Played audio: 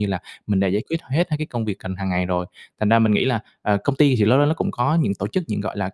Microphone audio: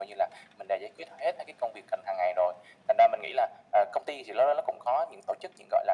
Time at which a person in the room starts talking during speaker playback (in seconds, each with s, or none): none